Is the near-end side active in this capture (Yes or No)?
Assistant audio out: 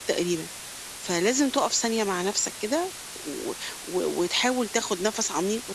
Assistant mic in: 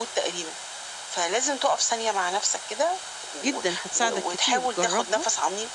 Yes